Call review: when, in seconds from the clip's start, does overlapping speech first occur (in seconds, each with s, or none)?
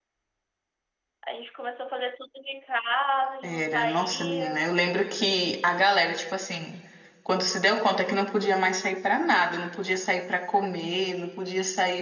3.4 s